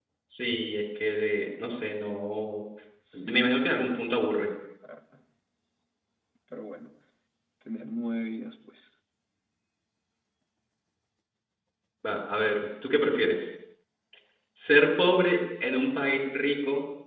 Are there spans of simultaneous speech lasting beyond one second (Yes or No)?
Yes